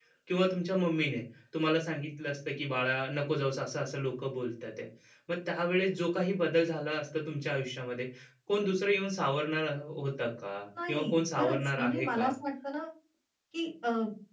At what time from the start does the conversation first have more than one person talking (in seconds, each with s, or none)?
10.8 s